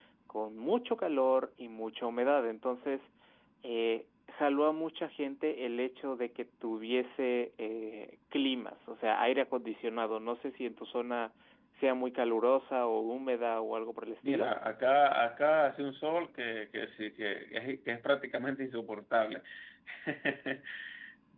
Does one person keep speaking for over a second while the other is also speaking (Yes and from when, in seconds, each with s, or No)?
No